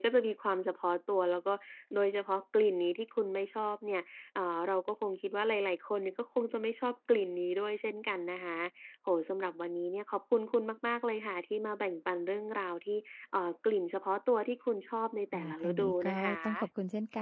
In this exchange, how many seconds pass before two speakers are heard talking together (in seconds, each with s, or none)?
15.3 s